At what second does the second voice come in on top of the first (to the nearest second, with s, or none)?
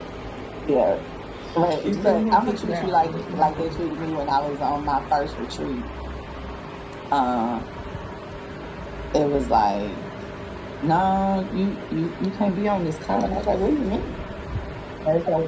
2 s